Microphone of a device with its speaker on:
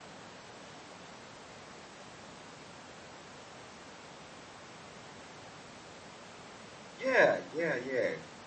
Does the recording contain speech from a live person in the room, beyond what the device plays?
Yes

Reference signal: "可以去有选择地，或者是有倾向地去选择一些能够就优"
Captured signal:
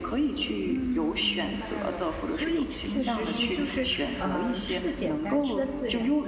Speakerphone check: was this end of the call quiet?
No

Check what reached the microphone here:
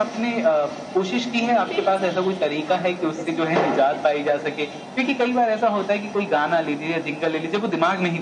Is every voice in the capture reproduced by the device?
No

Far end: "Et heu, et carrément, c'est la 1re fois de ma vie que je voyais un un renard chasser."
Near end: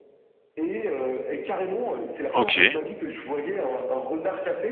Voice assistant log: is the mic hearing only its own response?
No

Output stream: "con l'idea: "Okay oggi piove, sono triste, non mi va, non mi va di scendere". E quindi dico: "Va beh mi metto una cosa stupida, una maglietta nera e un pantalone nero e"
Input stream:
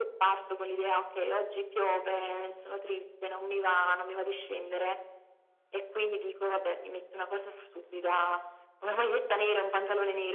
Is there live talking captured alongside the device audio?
No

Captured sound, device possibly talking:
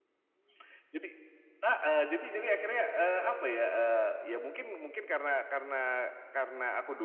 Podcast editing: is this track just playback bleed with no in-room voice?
Yes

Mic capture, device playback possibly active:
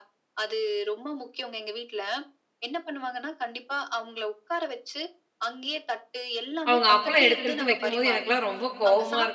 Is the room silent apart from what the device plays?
No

